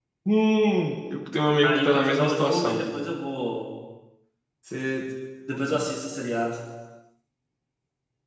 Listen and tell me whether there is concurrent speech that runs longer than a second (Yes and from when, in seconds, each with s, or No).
Yes, from 1.6 s